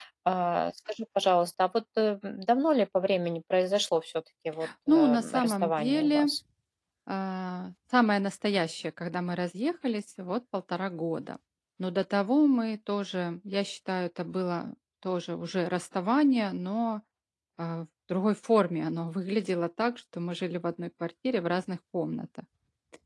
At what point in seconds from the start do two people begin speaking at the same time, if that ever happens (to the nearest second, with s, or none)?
5 s